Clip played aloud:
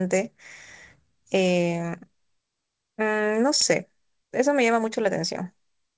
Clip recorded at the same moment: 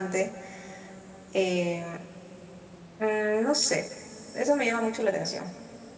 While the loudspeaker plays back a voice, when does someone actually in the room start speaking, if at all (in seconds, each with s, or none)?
none